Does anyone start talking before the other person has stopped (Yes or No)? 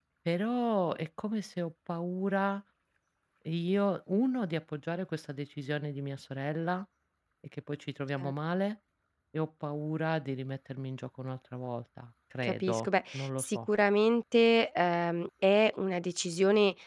Yes